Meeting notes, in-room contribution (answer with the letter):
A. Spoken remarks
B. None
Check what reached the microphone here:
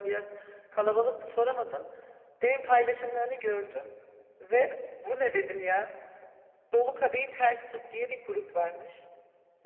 B